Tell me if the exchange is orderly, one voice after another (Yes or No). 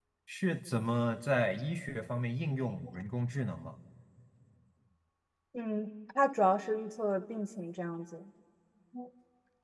Yes